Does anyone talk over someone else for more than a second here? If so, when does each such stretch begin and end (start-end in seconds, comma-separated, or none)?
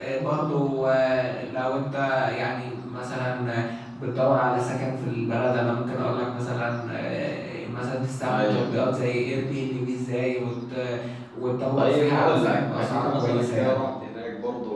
11.8-13.8